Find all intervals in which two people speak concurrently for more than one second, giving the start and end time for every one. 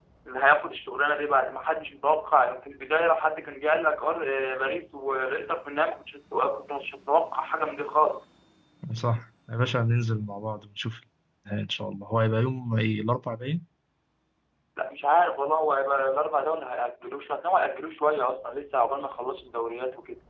none

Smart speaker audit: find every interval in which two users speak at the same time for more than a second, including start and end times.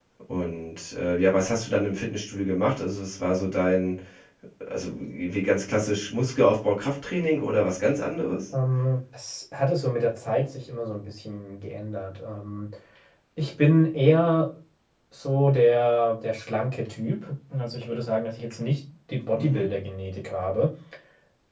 none

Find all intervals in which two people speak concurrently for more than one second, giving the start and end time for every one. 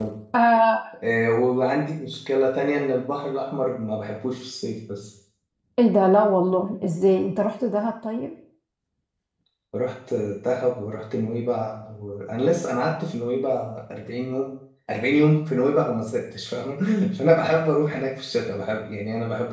none

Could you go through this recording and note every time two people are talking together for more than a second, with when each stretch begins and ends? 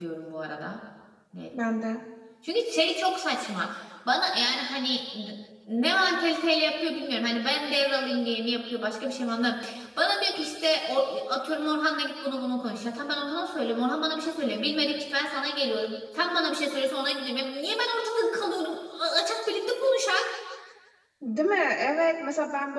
none

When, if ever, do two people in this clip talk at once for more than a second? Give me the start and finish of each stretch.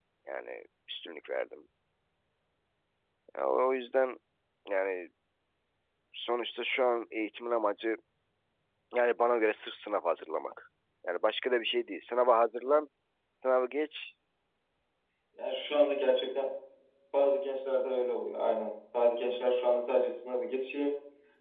none

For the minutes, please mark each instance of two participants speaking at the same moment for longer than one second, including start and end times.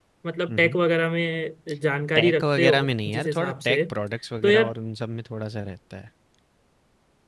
2.2-3.8

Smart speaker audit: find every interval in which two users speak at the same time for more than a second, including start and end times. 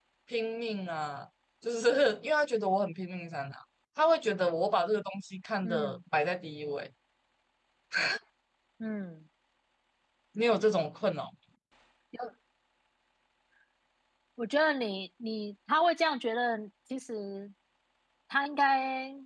none

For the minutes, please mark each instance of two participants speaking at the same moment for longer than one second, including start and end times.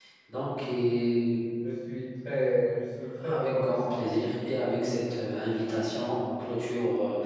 3.3-4.6

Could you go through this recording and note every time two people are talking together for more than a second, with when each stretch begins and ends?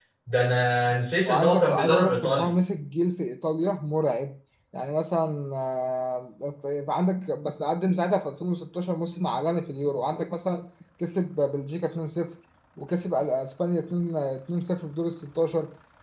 1.2-2.5

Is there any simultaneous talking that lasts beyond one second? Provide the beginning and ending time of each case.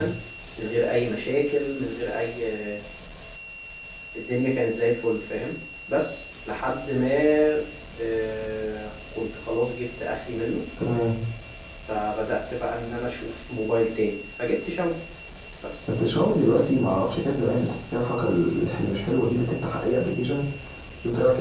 none

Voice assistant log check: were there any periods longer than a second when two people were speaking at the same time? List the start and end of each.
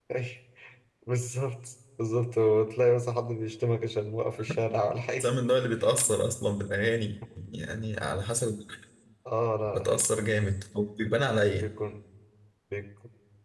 none

